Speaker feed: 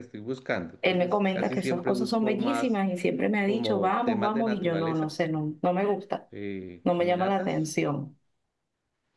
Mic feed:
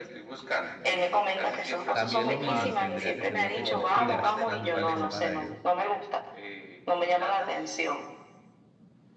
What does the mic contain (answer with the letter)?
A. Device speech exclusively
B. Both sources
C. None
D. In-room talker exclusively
B